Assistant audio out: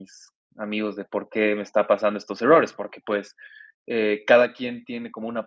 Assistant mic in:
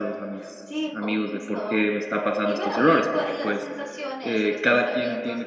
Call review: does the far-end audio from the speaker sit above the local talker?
Yes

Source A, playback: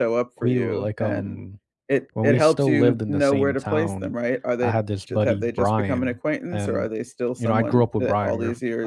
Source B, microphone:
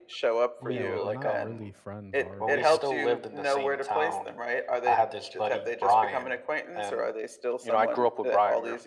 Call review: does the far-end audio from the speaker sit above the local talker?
Yes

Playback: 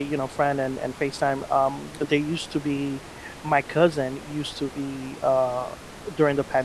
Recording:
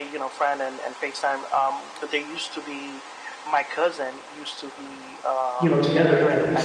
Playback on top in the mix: No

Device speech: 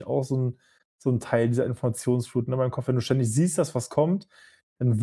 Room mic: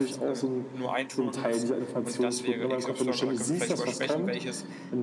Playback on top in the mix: Yes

